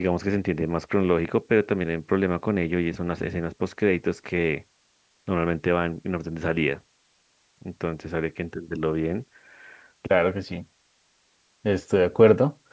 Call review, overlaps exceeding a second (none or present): none